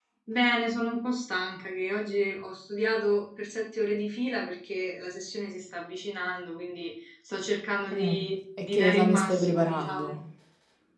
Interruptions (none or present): present